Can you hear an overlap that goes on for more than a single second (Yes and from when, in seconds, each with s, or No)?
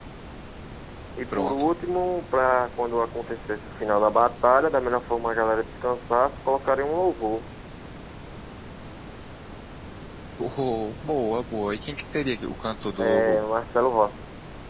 No